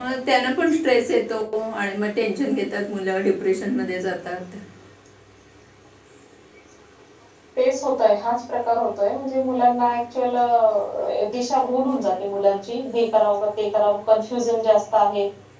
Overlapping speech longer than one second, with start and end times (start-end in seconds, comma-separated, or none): none